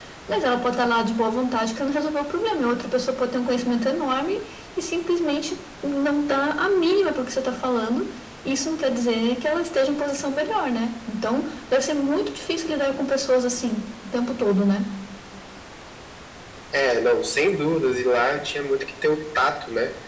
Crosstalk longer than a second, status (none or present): none